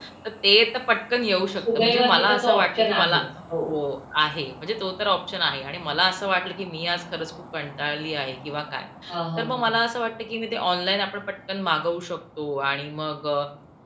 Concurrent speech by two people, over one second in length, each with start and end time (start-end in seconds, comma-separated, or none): 1.6-3.2